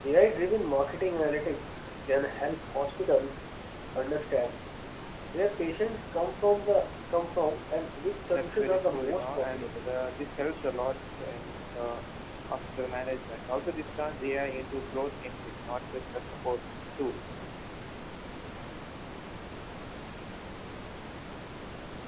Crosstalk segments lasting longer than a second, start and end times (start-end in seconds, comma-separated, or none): 8.3-9.9